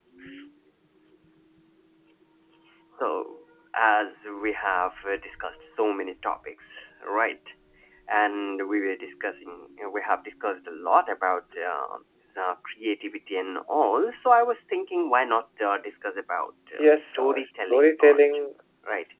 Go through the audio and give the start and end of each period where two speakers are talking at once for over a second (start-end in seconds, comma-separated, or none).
16.8-18.2